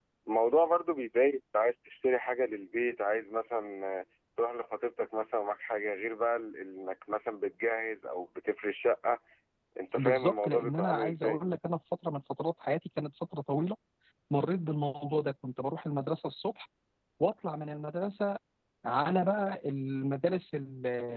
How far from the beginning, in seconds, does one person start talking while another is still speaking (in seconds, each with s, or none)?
10.0 s